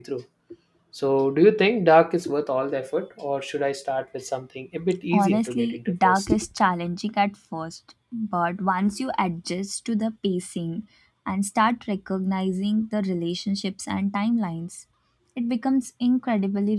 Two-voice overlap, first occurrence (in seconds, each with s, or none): 5.1 s